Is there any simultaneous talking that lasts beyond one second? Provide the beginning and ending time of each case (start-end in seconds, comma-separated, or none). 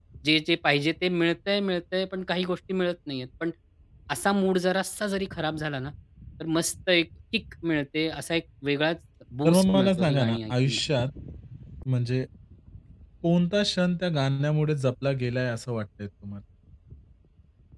9.4-10.8